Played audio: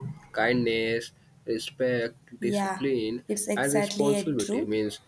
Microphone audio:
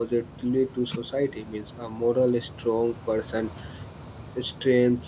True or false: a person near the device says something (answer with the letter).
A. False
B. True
B